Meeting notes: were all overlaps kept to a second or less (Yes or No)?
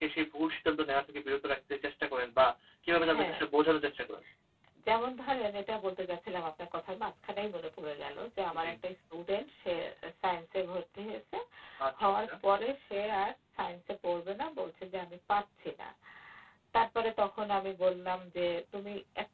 Yes